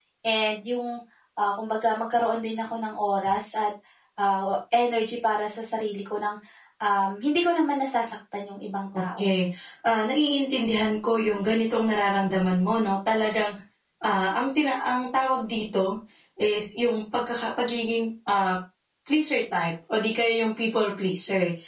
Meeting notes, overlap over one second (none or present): none